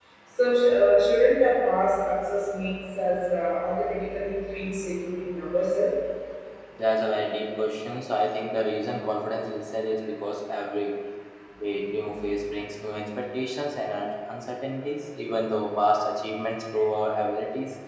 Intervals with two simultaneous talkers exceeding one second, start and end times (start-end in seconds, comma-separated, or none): none